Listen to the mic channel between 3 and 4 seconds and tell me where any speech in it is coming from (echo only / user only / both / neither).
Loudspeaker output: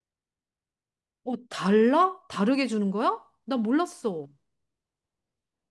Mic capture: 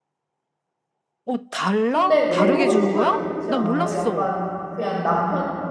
both